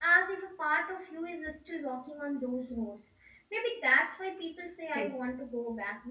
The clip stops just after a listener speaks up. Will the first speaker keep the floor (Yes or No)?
Yes